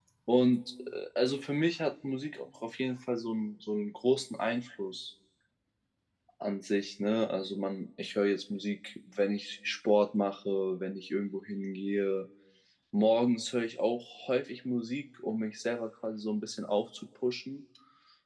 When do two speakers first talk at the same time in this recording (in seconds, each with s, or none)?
none